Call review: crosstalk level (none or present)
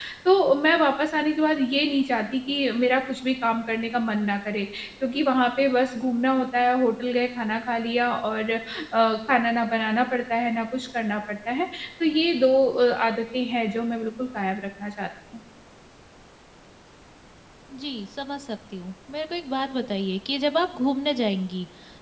none